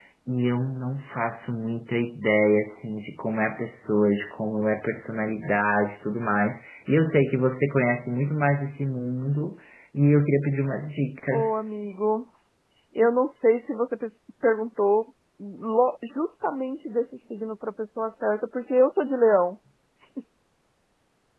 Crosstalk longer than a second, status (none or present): none